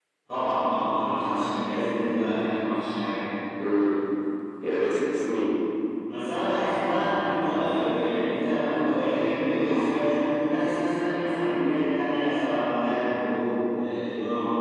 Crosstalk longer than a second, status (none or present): none